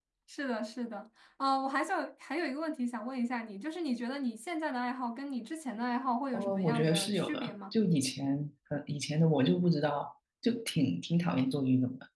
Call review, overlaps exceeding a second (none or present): present